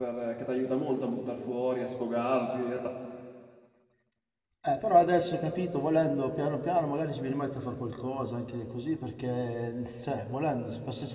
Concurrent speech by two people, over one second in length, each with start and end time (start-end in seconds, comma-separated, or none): none